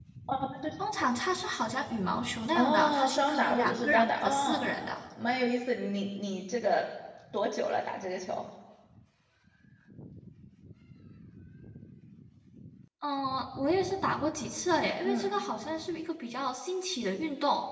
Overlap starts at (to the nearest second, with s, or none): 3 s